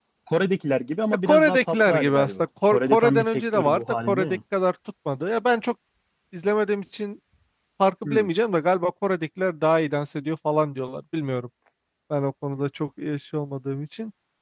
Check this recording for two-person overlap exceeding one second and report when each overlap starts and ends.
1.3-4.4

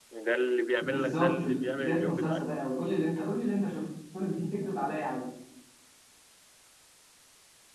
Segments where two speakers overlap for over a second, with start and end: 0.8-2.5

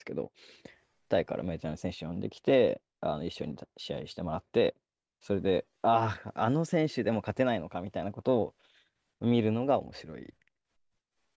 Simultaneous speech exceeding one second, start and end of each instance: none

